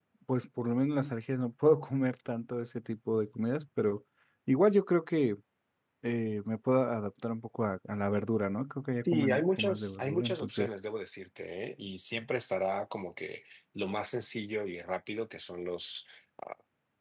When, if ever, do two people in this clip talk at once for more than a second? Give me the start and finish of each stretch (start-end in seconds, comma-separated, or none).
9.1-10.7